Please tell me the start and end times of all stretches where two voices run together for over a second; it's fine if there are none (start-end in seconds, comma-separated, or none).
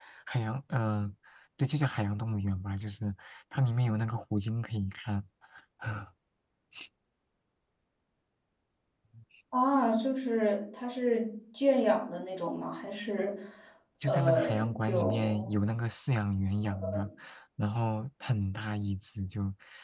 14.0-15.4